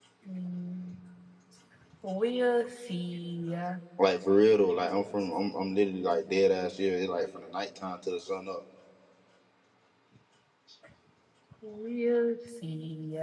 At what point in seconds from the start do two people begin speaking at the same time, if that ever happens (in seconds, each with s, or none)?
none